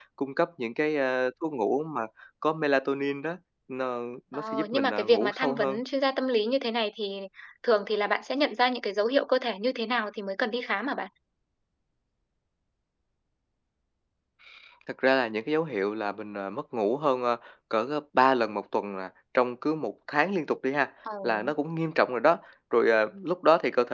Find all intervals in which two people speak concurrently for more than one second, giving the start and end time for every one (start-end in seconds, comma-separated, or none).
4.3-5.8